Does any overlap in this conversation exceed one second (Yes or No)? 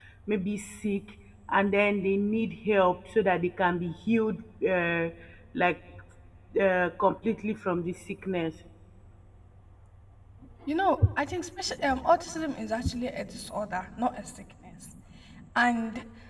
No